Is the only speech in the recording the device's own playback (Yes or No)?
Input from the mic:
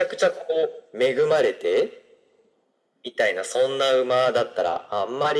Yes